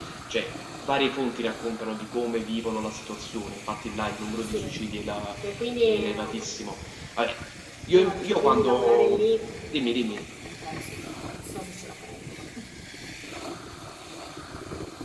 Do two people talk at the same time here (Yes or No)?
Yes